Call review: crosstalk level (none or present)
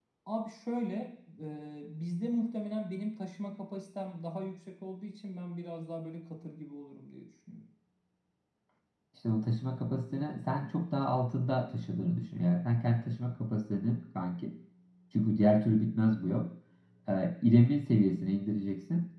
none